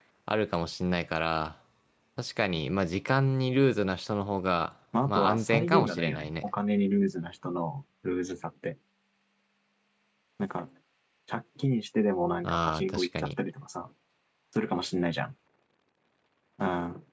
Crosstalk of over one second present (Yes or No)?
Yes